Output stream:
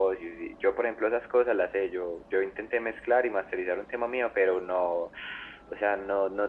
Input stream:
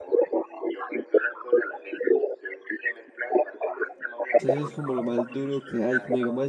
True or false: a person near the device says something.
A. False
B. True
B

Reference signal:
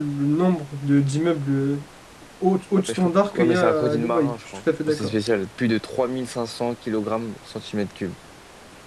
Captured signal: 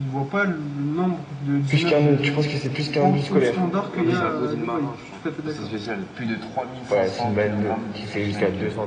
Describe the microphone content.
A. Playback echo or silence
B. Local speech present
B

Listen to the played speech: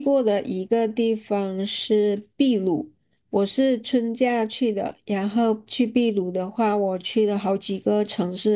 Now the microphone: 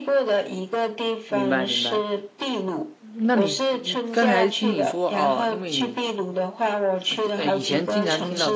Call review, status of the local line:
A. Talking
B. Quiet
A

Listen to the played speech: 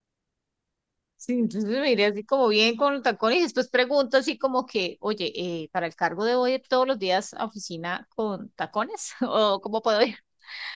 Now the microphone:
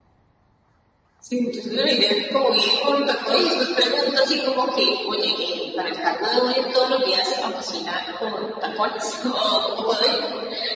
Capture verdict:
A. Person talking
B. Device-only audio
B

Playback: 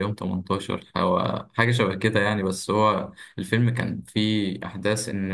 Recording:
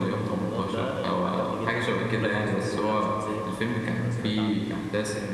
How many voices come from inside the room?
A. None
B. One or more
B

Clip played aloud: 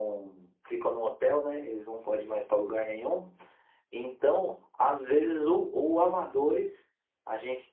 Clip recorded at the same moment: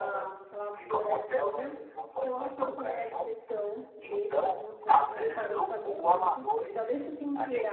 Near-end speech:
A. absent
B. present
B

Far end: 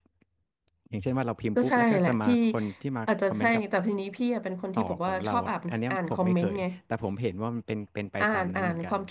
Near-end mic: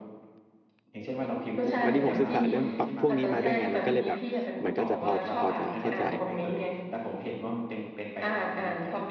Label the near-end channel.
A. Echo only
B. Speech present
B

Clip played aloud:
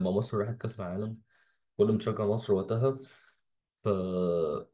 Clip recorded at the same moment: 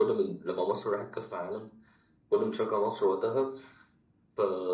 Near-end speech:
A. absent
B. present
A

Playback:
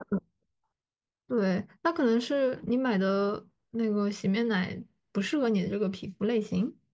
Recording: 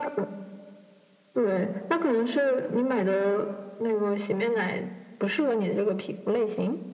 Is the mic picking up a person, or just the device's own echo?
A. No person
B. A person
A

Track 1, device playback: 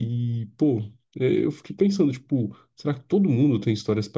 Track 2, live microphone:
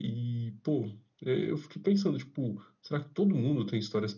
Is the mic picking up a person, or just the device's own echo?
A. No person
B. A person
A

